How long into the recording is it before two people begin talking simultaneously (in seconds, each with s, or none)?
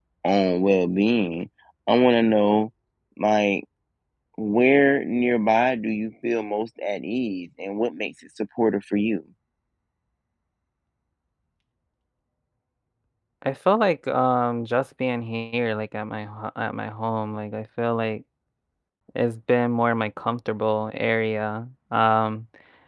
none